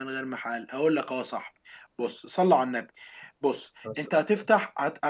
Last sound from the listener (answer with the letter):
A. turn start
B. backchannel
B